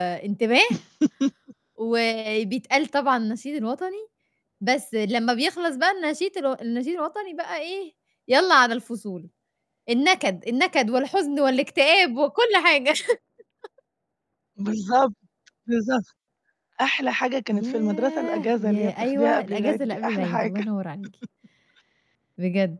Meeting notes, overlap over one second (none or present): present